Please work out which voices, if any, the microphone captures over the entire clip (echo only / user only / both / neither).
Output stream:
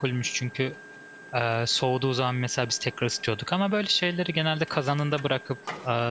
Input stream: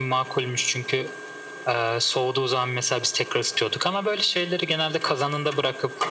echo only